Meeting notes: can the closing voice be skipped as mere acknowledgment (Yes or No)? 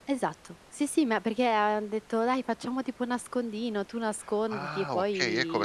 No